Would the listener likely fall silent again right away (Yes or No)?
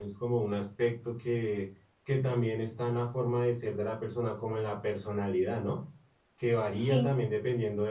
Yes